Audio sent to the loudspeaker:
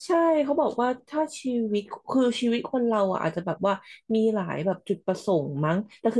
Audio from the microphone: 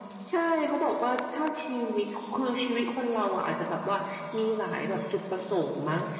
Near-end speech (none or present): none